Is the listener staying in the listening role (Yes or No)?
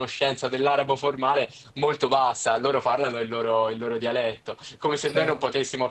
Yes